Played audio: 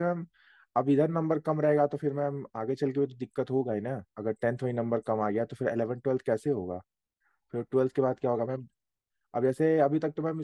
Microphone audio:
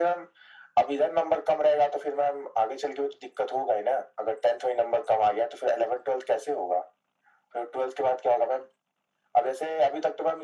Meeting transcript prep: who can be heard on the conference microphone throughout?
echo only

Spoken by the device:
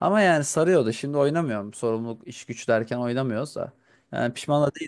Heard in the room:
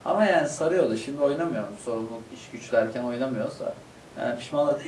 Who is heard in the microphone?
echo only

